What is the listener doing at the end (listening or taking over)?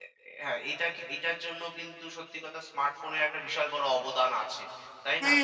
taking over